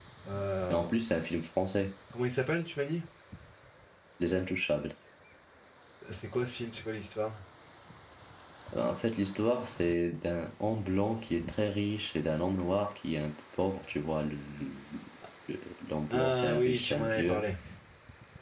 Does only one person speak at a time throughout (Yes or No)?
No